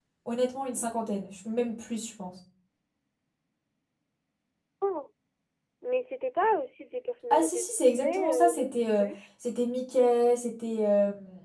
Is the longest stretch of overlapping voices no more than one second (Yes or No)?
No